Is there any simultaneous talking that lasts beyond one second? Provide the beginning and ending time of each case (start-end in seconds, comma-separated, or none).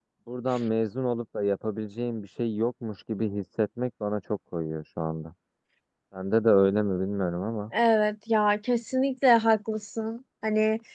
none